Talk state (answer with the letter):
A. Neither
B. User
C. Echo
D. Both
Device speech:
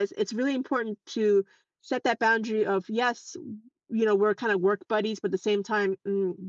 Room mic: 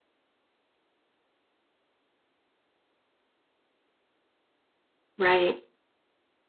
B